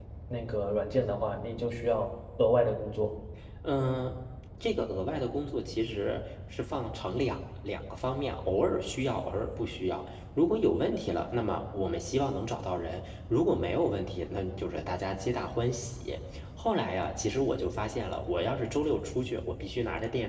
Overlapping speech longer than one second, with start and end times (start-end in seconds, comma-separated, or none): none